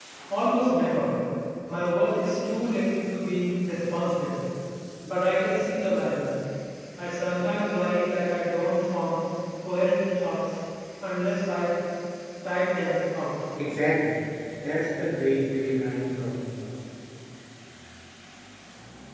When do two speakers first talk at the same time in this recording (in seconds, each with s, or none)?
none